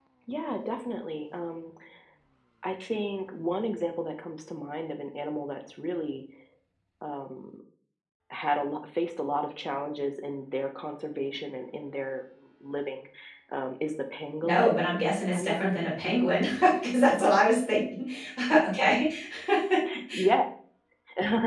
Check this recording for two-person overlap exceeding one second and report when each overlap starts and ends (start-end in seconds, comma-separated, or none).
15.3-16.6